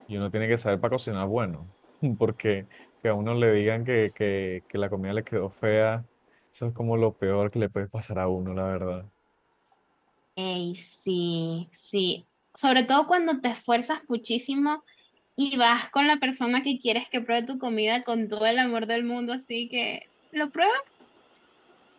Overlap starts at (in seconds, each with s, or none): none